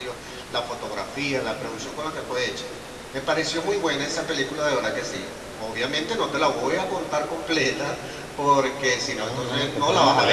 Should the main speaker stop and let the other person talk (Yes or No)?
Yes